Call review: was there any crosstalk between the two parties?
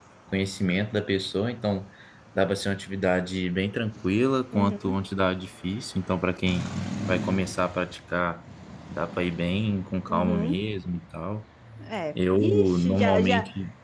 Yes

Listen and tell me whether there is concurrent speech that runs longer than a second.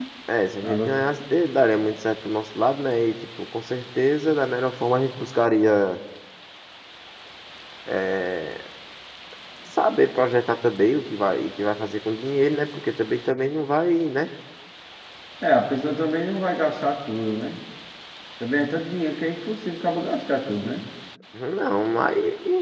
No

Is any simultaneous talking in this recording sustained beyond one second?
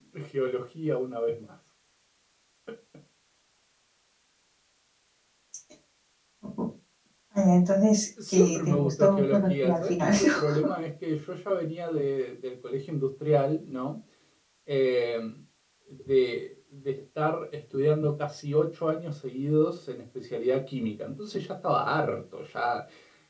Yes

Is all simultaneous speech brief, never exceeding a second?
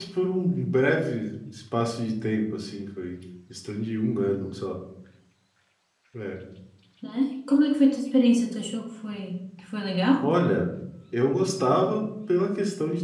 Yes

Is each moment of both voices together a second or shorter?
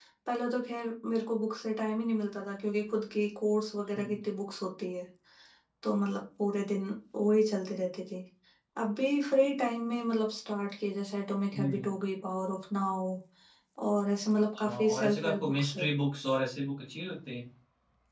No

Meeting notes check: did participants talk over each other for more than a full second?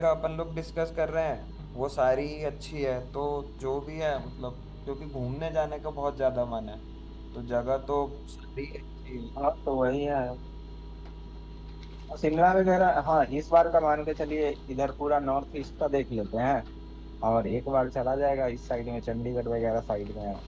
No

